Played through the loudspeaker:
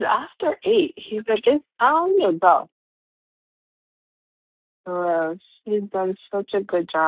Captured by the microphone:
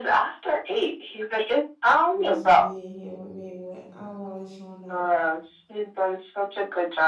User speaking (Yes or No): Yes